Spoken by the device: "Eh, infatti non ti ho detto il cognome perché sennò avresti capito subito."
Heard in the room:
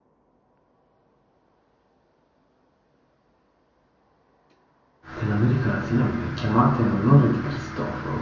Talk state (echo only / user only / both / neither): user only